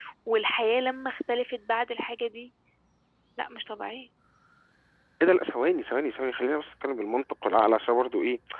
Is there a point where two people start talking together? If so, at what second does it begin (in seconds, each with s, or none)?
none